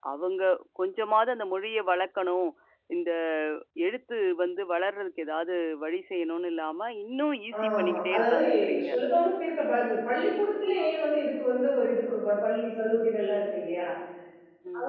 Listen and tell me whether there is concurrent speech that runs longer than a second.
Yes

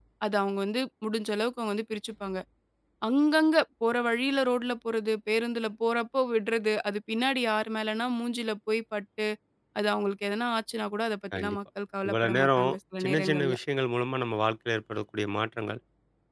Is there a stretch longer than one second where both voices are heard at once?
Yes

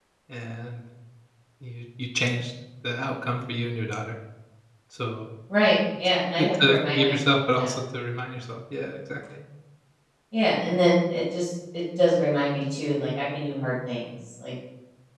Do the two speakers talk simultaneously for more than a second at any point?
Yes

